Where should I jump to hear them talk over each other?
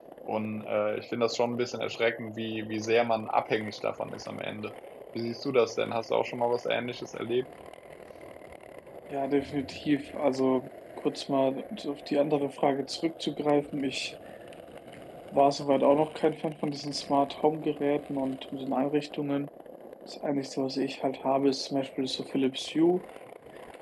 none

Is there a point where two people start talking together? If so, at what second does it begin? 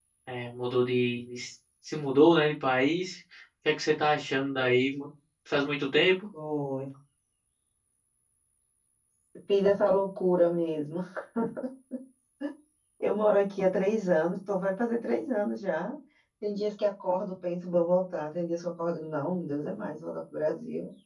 none

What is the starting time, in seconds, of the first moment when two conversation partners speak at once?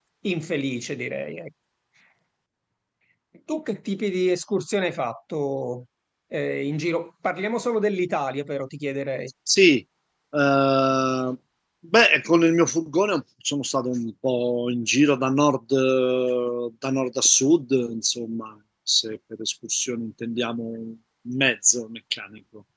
none

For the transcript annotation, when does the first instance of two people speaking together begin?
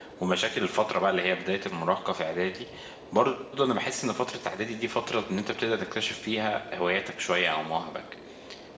none

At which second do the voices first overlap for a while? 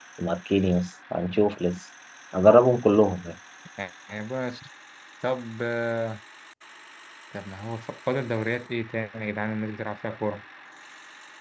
none

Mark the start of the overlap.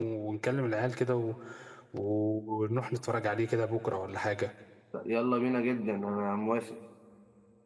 none

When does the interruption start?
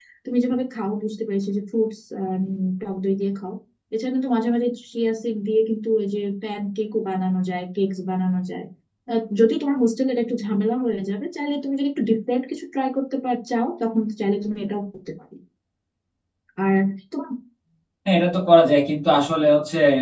none

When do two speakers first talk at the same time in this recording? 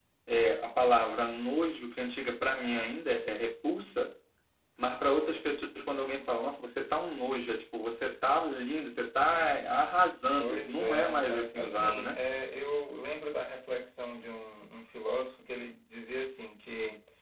10 s

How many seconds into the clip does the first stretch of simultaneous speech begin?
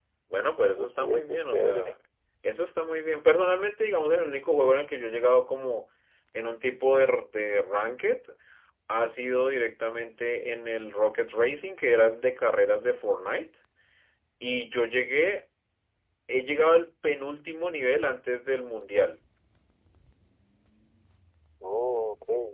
1 s

